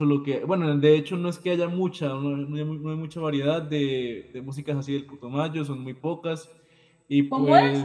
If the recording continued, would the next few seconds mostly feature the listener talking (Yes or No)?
Yes